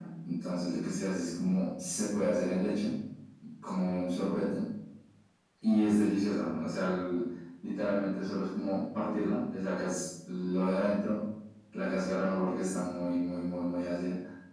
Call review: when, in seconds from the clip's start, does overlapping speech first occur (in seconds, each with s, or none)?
none